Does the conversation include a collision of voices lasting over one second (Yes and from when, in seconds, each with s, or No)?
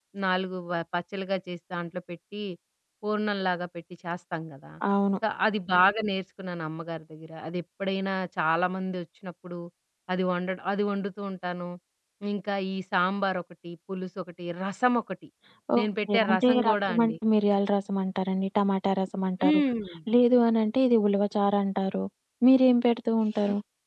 Yes, from 15.8 s